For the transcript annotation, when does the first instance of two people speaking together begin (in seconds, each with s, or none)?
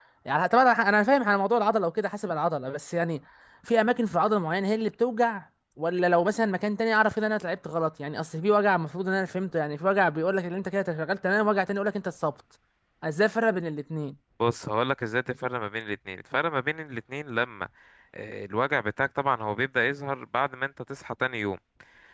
none